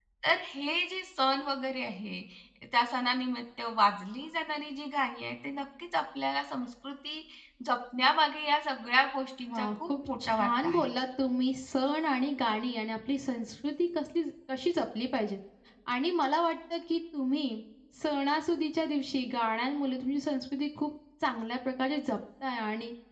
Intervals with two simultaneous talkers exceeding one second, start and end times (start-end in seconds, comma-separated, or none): 9.5-10.9